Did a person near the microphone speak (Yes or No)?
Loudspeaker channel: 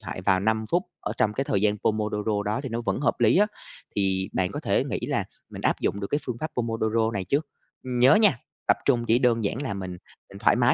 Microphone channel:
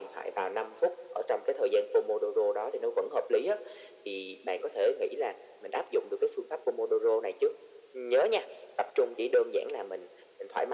No